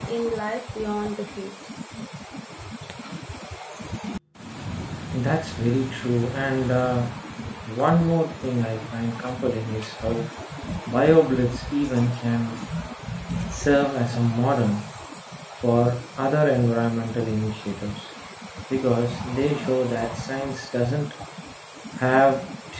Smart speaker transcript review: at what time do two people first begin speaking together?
none

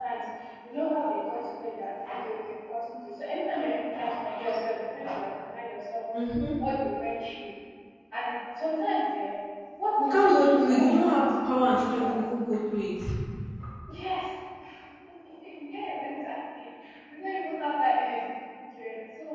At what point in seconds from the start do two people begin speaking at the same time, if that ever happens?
10.0 s

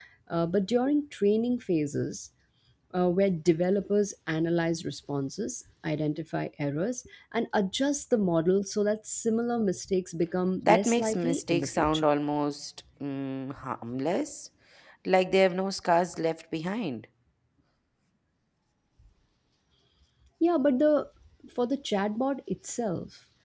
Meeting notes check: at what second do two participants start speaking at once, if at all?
10.7 s

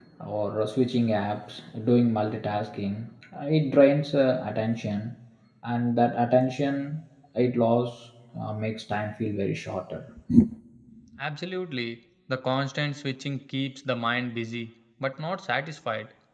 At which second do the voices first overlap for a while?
none

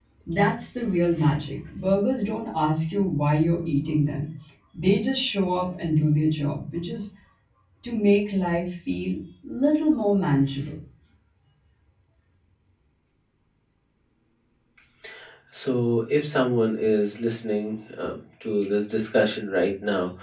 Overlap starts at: none

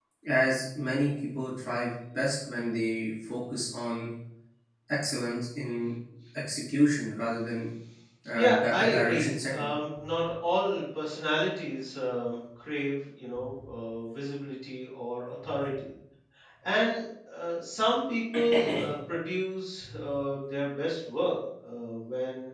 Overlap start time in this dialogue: 8.3 s

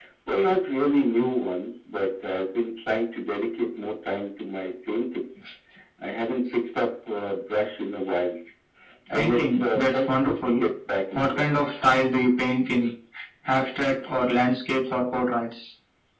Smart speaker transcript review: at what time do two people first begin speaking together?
9.1 s

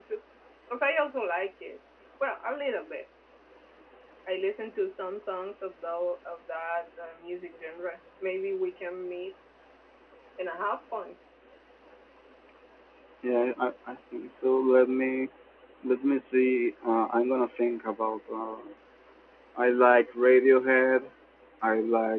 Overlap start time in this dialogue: none

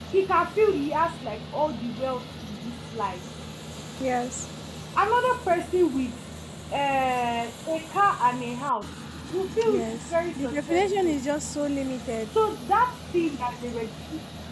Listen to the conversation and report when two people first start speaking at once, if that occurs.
9.7 s

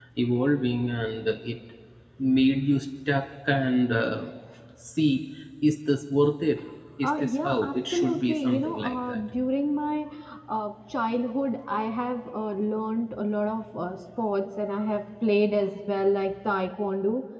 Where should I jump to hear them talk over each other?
7.0 s

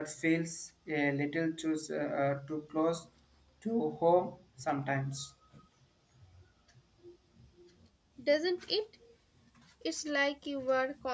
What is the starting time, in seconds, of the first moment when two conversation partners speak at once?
none

